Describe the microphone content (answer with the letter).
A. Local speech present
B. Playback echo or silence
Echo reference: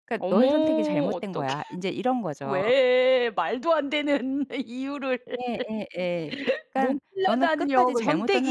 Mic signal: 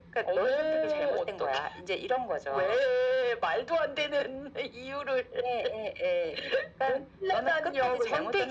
B